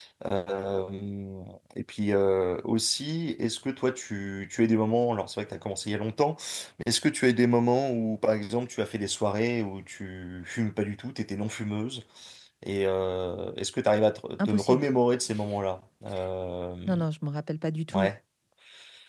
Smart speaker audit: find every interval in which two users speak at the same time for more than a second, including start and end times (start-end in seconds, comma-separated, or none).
none